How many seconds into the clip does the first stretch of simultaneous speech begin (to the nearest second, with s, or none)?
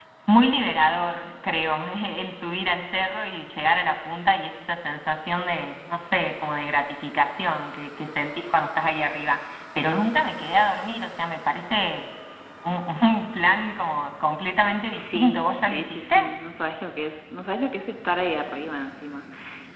15 s